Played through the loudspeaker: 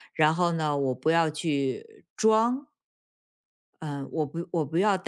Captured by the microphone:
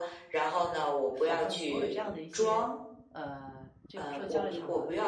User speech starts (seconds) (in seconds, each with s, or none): 1.2 s